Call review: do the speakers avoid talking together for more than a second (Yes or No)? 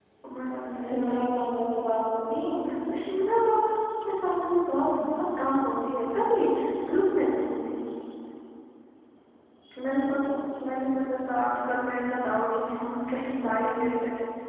Yes